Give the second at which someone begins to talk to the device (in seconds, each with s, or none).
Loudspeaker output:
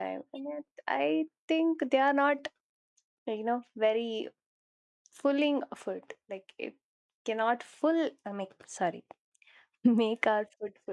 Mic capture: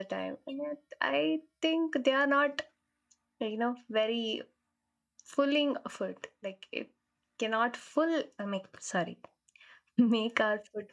none